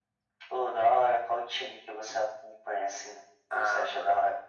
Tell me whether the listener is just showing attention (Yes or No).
No